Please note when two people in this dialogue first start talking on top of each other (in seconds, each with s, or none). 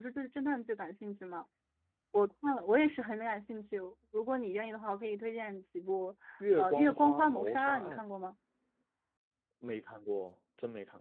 6.6 s